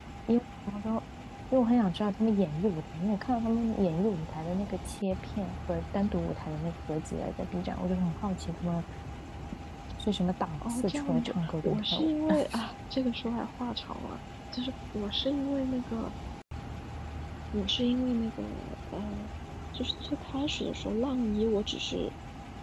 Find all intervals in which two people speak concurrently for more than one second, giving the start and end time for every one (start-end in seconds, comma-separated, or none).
10.7-12.1